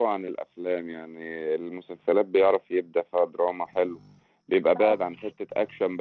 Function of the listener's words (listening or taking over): listening